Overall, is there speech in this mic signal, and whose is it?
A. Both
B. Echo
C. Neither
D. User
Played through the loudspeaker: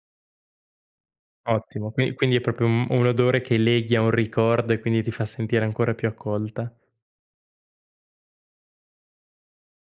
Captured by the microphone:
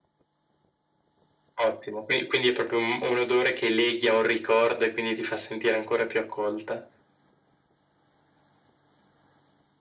B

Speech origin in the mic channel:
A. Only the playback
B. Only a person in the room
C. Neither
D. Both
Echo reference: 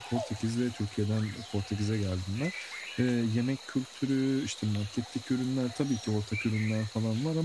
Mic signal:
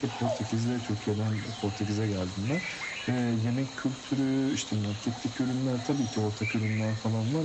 A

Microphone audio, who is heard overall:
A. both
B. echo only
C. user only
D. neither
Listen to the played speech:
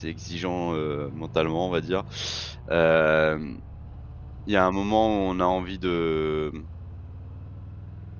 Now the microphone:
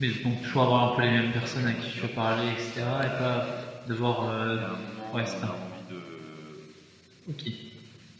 A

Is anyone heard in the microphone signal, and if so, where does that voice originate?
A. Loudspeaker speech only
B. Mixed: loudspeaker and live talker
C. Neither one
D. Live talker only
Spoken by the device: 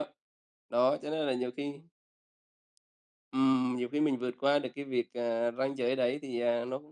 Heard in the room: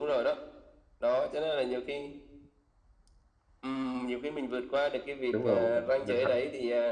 B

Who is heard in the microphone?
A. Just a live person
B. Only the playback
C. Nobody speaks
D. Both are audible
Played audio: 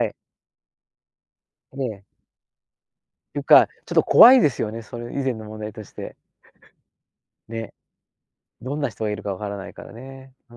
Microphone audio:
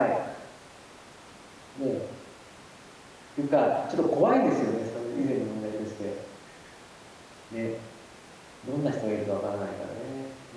B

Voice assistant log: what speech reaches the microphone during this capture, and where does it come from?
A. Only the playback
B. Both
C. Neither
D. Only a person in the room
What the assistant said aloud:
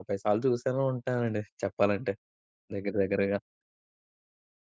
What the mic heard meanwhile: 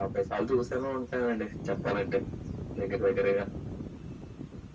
A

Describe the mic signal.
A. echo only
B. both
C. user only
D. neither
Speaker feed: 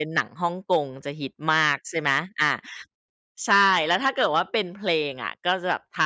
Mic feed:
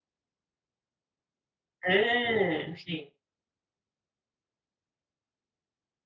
C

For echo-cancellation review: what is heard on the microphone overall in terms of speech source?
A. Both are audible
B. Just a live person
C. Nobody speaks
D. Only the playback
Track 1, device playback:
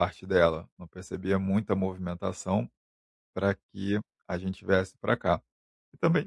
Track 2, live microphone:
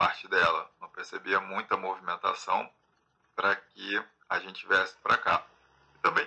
D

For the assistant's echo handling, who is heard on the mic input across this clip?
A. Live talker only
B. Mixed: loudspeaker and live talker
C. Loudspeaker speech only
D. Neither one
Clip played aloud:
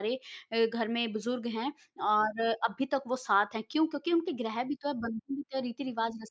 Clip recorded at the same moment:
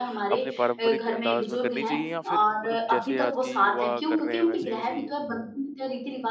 B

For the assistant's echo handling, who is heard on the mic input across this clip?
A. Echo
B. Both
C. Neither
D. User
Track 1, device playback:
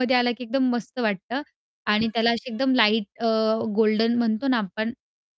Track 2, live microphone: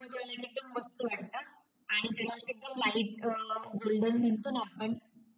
A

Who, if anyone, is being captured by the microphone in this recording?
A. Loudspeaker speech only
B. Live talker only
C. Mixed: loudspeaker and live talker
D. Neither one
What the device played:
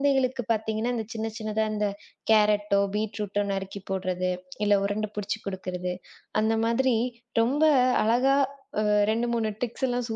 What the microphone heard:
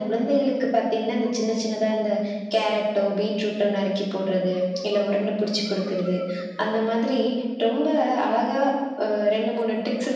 A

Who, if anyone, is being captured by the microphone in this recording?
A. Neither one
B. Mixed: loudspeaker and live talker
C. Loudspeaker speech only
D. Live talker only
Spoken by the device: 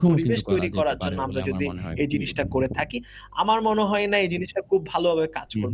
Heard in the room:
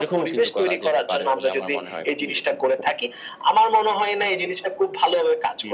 C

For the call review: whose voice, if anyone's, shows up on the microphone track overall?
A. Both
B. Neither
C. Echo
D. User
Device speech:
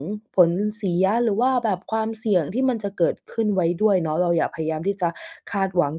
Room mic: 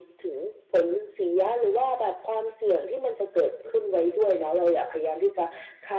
C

